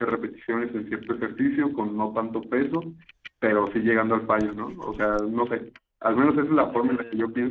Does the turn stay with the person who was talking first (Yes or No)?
Yes